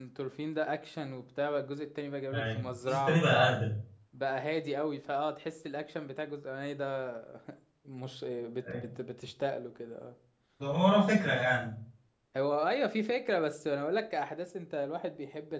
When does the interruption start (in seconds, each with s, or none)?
2.3 s